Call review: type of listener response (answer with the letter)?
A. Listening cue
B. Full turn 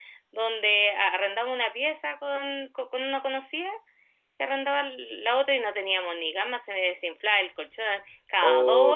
B